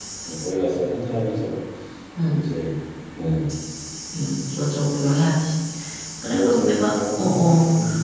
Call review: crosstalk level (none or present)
present